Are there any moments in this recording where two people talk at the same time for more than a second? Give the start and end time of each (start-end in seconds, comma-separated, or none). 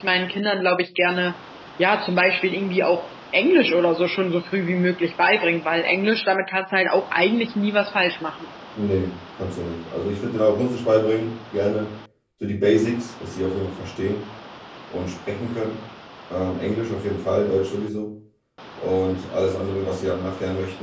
none